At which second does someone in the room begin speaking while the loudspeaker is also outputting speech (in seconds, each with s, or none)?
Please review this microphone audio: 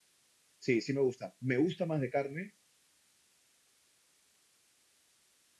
0.6 s